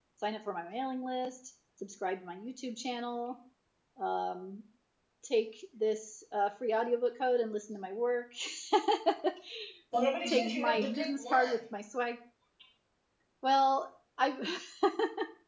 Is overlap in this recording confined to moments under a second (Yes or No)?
No